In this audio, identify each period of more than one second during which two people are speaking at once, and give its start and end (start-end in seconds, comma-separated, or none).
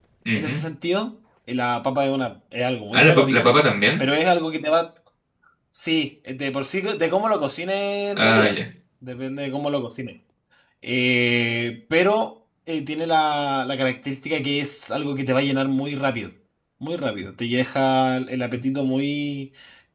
none